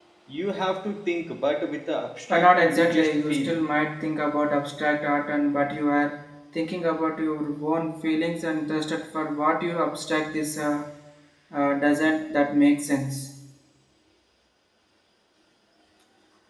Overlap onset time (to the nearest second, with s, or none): 2 s